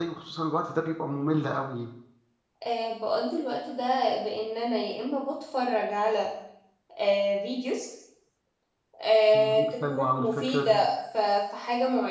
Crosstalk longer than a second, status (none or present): present